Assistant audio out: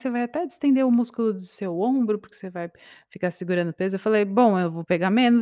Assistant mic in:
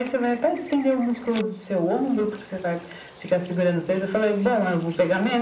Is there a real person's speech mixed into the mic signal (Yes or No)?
No